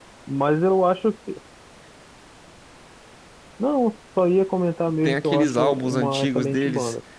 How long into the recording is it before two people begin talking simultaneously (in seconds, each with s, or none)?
5.0 s